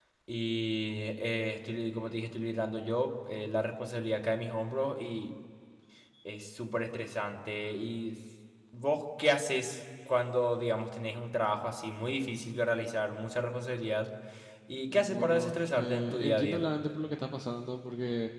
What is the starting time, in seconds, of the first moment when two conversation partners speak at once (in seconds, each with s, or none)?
14.9 s